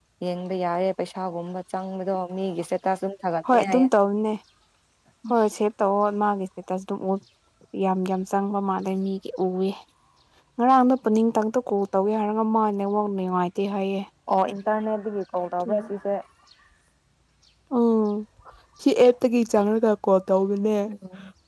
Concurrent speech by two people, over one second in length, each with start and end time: none

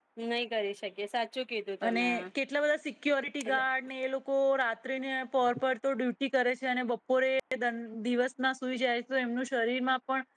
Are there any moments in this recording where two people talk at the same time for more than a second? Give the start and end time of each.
none

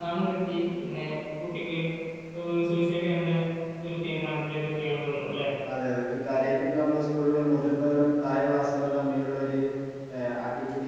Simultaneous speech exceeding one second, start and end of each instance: none

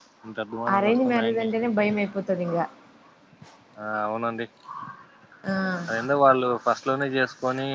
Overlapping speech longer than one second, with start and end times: 0.7-2.0

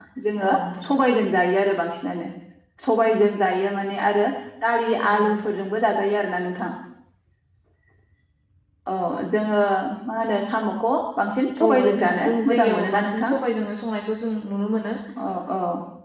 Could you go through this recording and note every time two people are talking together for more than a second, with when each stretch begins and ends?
11.6-13.3

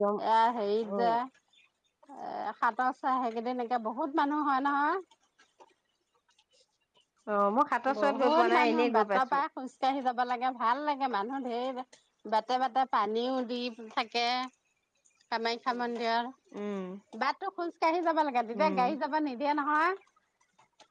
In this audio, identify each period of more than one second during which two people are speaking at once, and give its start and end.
8.0-9.4

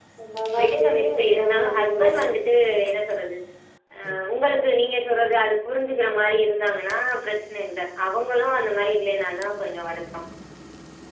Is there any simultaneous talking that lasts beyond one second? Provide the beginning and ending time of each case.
0.6-2.5

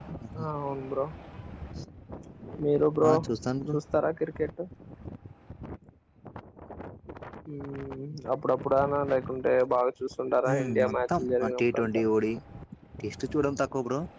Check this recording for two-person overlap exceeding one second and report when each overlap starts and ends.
10.5-12.0

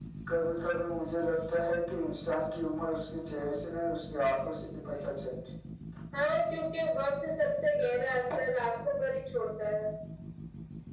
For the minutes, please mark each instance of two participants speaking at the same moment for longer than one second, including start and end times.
none

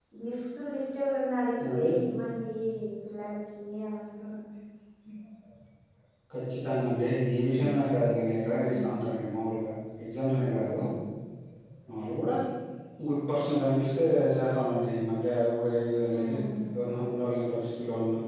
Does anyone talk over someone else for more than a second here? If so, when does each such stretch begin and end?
none

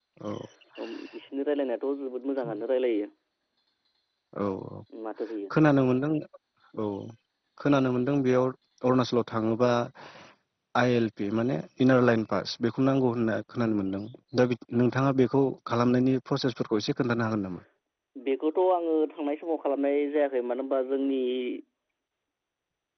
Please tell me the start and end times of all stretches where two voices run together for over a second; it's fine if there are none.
none

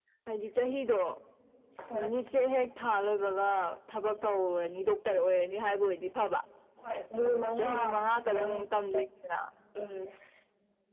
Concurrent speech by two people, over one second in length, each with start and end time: 7.3-8.6

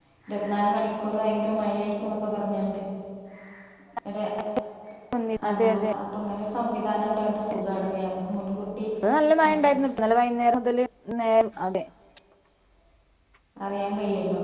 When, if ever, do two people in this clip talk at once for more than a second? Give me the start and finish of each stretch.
none

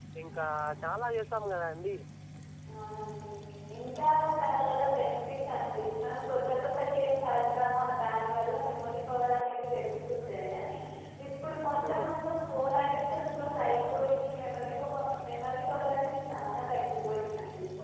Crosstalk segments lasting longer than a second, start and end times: none

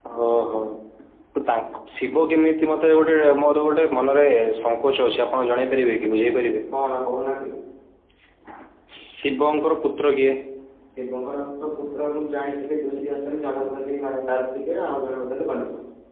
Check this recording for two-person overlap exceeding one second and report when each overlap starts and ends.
none

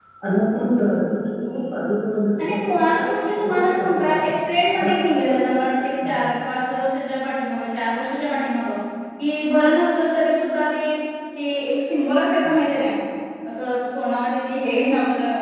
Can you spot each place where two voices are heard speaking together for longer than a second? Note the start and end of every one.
2.4-4.3

